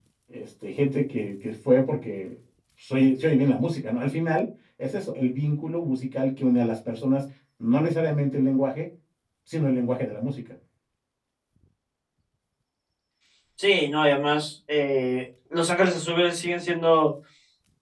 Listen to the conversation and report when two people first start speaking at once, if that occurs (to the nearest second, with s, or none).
none